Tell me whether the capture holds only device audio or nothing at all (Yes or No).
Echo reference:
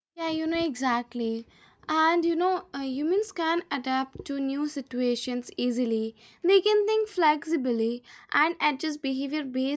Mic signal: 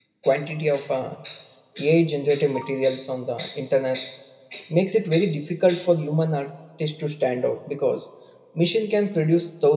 No